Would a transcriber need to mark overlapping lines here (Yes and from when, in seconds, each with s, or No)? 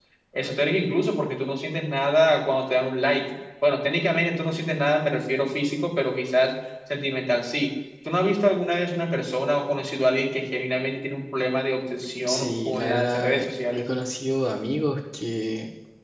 Yes, from 12.3 s